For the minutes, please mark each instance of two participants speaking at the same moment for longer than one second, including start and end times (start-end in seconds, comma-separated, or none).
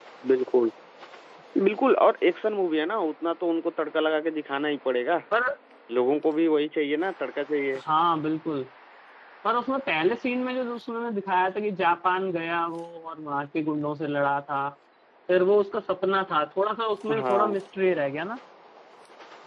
none